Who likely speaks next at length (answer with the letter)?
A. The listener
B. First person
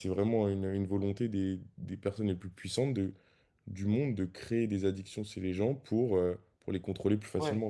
A